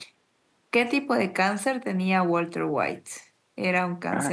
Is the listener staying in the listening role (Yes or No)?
Yes